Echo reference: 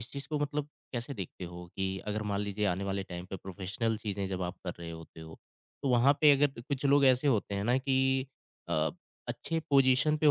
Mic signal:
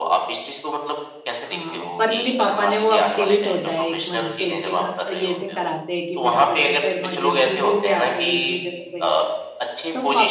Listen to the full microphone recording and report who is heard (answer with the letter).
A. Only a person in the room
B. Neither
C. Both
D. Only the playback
C